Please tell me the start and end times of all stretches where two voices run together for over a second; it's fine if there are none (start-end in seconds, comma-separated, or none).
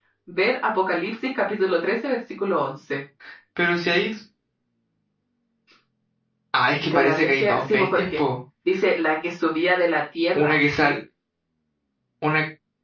6.8-8.2